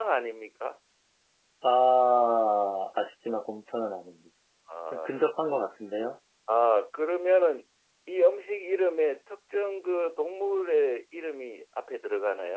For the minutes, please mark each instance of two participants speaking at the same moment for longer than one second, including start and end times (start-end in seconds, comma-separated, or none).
none